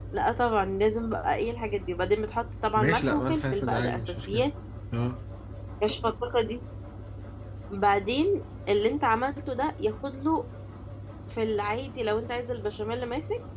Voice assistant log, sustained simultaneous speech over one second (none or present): present